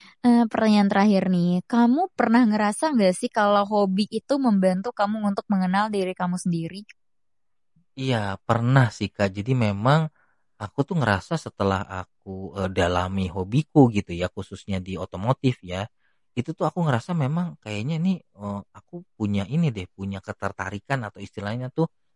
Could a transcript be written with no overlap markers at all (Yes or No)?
Yes